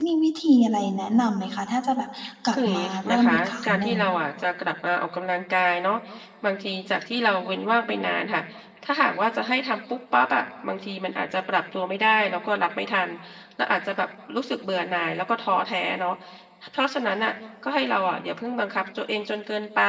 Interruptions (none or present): present